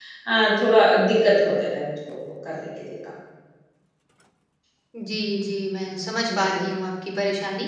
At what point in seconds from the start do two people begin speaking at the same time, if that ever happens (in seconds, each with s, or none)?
none